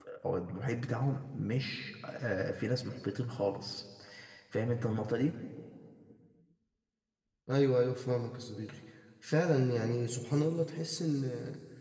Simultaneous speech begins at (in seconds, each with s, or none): none